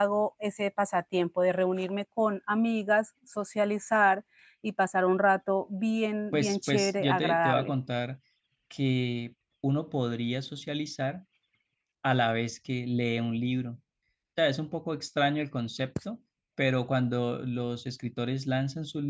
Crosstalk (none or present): present